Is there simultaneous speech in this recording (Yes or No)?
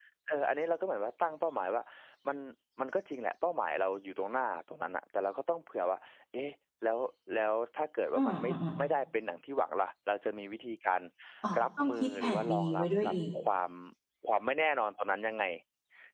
Yes